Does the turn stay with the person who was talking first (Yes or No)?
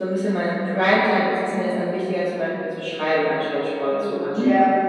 No